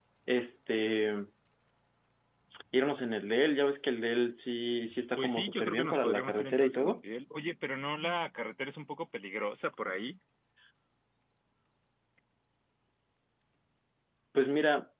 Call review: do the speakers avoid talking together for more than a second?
No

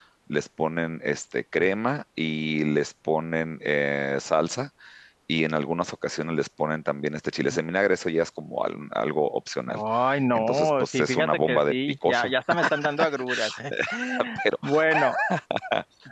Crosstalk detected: Yes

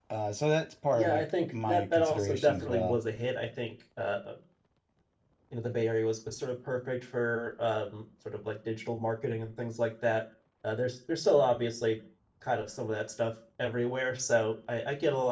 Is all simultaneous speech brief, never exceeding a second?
No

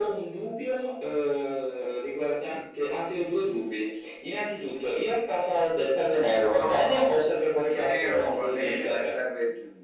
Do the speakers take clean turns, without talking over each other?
No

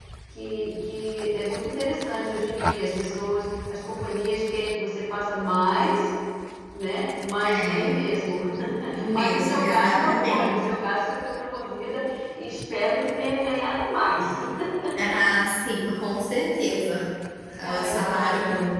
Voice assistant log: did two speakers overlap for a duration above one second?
Yes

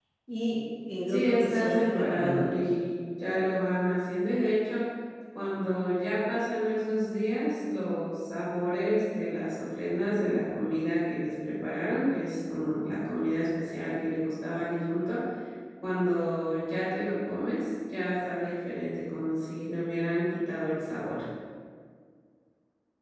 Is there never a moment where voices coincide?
No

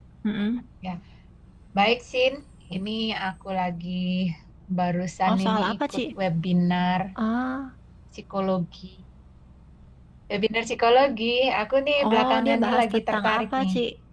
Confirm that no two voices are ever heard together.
No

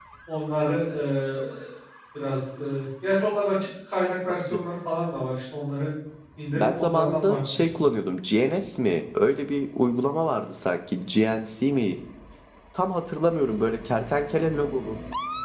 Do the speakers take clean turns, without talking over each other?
No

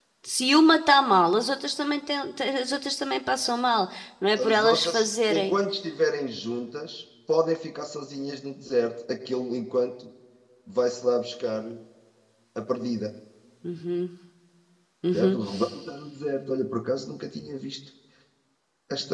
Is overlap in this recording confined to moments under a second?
No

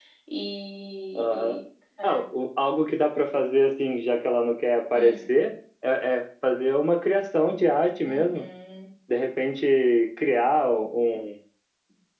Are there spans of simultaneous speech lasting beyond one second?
No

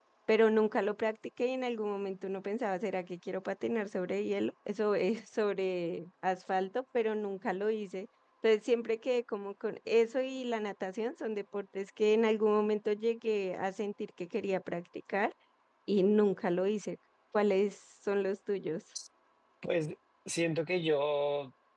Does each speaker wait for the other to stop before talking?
Yes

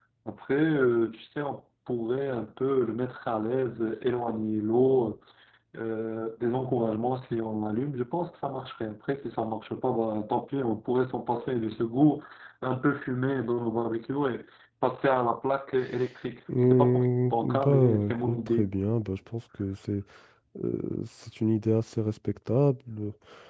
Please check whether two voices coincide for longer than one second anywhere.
Yes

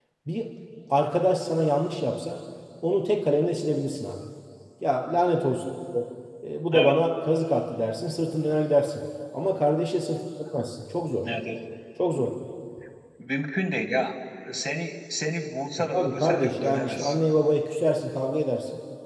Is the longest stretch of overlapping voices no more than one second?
No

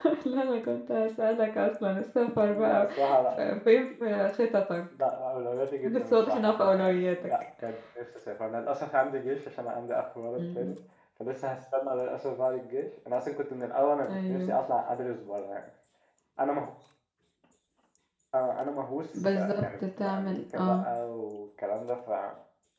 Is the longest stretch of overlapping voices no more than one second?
No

